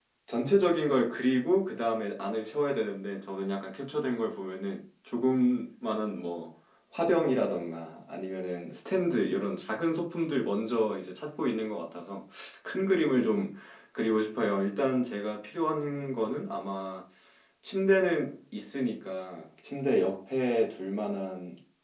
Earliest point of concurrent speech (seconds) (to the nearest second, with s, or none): none